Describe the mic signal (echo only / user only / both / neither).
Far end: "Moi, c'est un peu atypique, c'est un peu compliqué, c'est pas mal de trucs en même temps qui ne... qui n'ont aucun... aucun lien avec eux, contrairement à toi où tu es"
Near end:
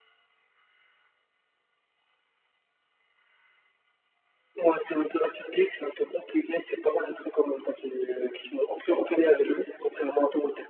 echo only